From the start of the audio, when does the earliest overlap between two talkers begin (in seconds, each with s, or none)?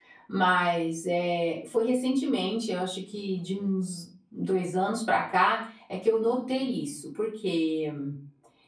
none